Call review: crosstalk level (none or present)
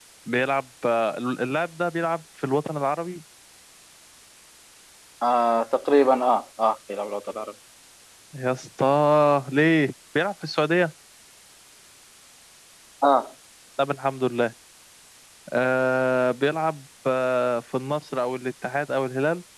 none